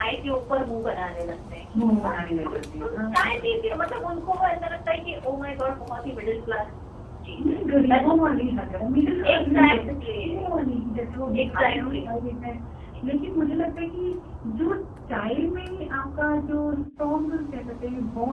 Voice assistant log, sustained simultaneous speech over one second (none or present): present